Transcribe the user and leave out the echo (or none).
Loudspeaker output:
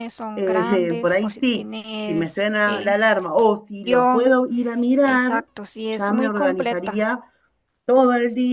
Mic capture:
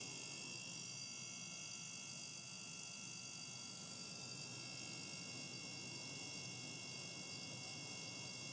none